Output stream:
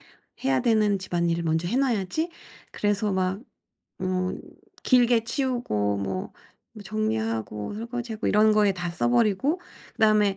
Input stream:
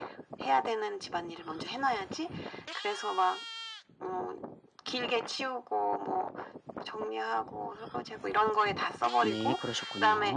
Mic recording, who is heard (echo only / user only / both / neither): both